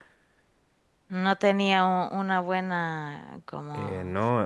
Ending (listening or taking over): taking over